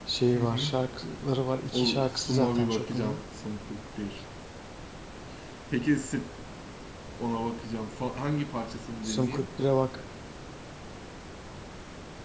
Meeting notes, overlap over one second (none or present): present